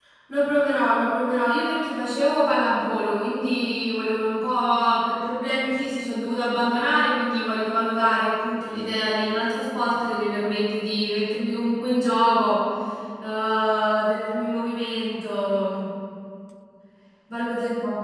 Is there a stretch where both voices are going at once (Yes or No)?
No